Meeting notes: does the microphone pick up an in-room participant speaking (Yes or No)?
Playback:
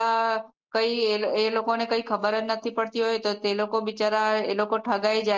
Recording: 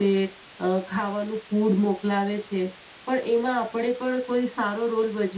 Yes